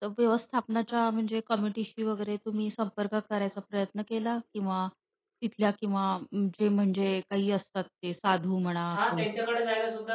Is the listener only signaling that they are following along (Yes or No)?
No